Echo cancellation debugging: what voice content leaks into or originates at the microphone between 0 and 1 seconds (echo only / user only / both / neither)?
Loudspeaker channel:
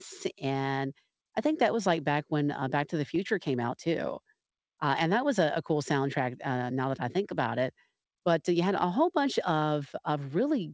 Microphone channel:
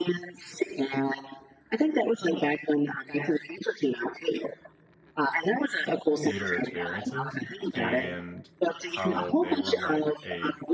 echo only